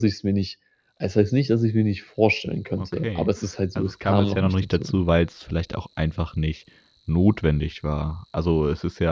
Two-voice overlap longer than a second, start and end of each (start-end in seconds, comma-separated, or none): 3.8-5.0